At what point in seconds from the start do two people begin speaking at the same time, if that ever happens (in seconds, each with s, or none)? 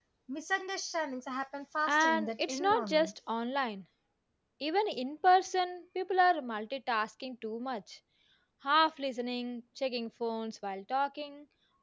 1.9 s